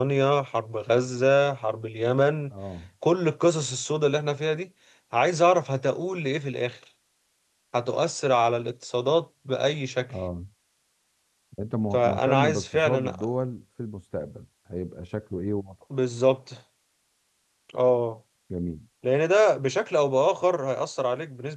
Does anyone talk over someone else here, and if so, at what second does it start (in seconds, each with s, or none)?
11.9 s